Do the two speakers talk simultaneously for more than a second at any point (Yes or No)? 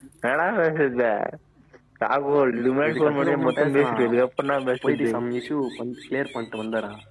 Yes